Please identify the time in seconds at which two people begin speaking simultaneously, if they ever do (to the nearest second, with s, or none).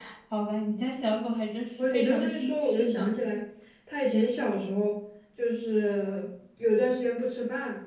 2 s